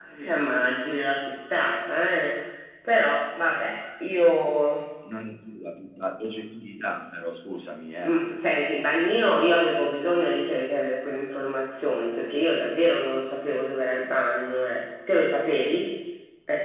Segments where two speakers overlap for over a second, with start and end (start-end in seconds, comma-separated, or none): none